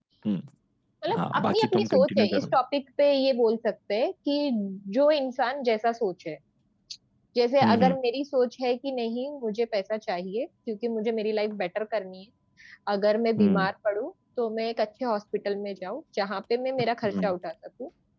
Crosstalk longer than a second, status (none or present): present